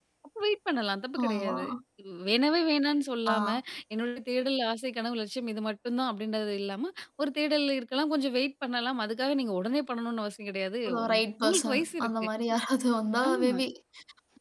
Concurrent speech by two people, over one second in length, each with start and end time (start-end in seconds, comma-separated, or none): 10.8-12.1